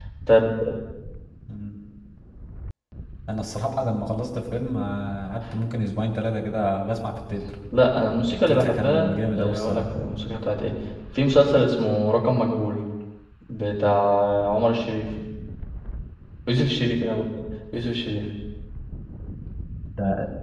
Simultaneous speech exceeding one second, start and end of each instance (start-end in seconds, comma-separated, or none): 8.5-9.8